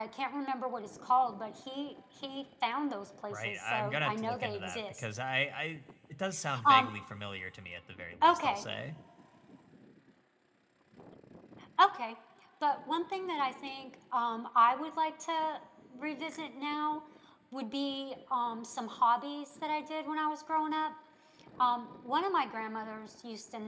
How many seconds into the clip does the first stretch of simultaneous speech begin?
3 s

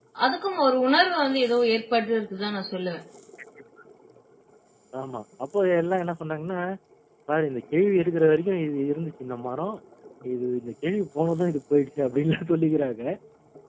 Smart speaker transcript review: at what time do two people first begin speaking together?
none

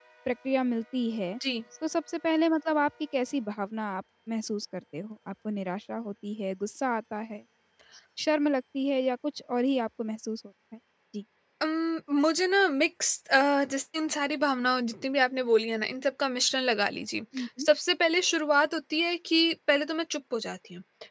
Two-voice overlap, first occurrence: none

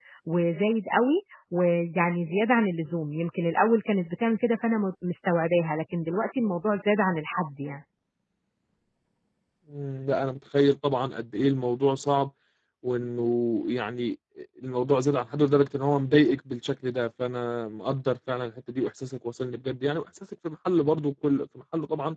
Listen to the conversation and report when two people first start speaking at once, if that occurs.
none

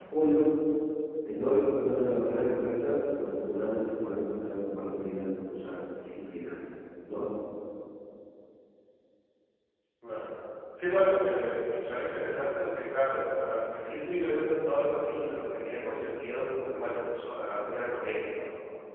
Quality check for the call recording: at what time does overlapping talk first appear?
none

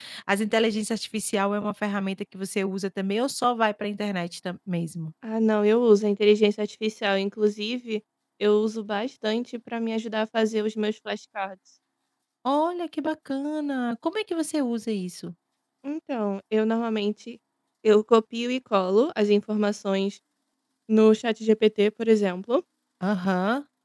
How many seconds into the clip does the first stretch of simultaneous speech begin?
none

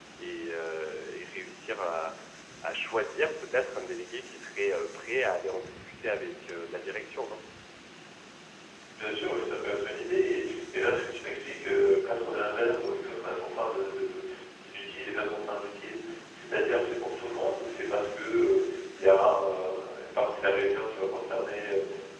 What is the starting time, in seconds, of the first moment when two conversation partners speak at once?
none

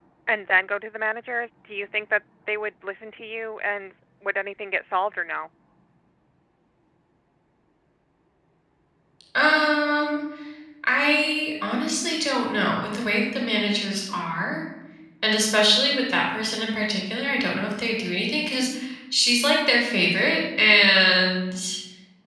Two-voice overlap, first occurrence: none

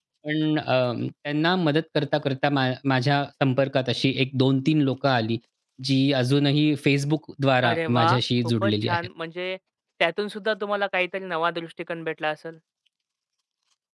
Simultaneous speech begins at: 8 s

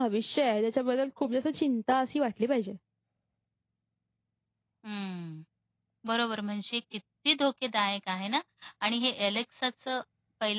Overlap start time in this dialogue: none

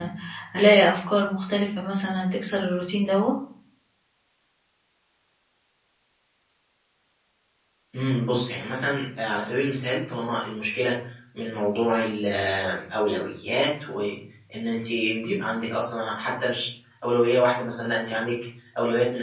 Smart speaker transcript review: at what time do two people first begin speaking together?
none

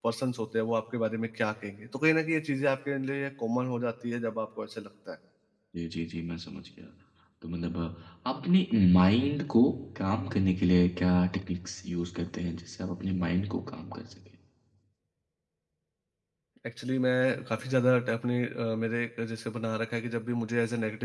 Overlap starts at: none

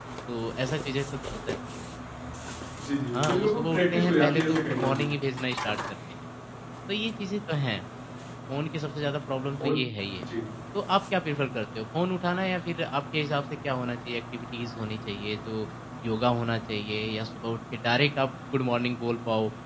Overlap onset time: 3 s

